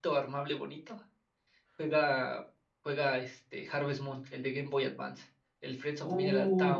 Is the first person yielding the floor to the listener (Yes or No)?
Yes